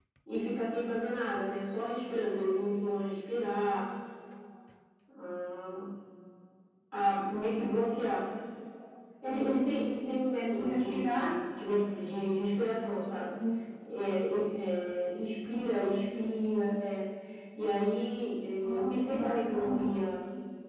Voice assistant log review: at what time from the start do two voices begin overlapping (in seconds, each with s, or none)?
9.3 s